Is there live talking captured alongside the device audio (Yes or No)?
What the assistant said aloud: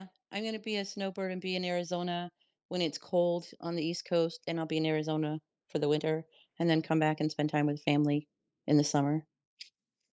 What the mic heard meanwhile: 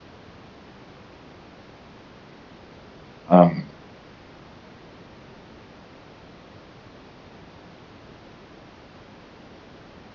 Yes